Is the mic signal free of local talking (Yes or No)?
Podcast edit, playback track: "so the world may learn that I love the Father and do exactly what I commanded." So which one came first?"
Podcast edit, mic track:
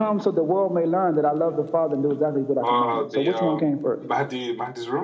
No